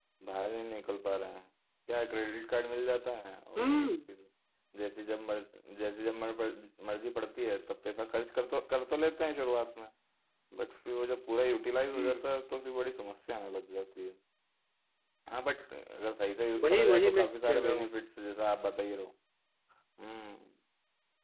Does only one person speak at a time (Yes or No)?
No